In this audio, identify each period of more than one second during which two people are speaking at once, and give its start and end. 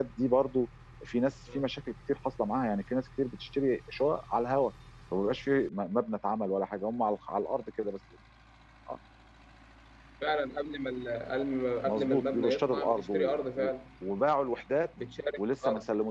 11.9-13.7

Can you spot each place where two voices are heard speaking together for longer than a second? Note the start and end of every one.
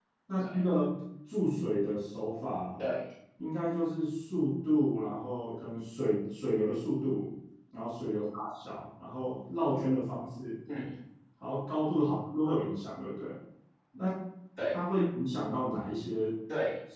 none

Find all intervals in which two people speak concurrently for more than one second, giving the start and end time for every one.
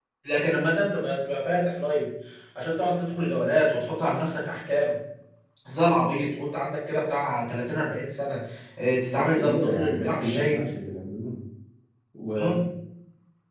9.1-10.7

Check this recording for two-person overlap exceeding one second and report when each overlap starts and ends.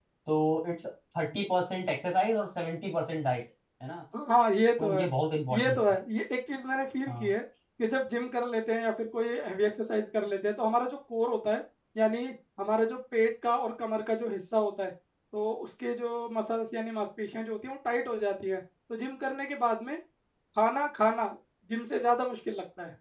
none

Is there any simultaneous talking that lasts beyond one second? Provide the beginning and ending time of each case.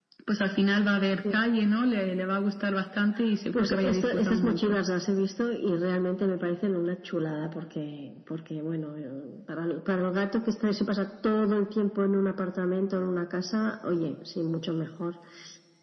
3.5-4.8

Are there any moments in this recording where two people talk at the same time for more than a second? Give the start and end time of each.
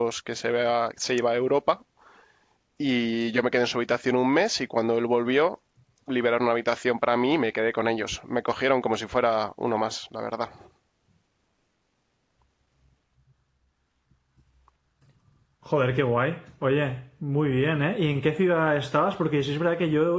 none

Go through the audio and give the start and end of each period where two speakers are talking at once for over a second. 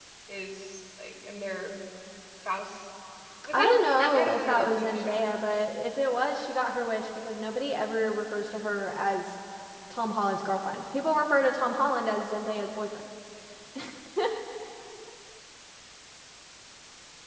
3.5-5.2

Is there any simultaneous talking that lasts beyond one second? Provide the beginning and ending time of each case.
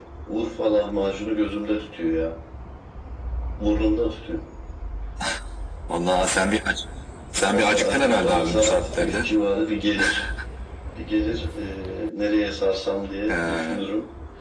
7.5-9.3

